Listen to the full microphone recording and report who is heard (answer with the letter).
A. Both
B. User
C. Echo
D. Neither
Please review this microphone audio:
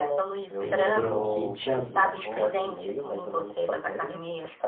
A